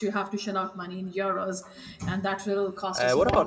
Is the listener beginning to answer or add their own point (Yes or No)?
Yes